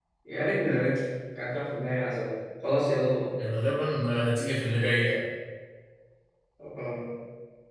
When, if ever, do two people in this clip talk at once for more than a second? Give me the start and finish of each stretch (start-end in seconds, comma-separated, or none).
none